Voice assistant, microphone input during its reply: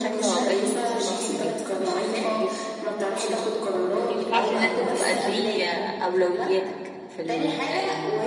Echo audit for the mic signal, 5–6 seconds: both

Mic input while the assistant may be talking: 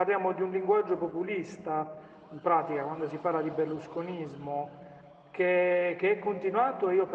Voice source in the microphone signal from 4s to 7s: user only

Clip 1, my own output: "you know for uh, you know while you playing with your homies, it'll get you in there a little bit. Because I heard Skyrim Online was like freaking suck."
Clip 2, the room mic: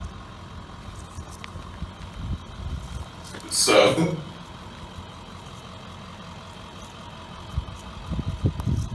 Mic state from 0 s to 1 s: neither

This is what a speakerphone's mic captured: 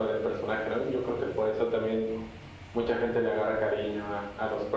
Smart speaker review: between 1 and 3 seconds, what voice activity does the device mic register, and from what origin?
echo only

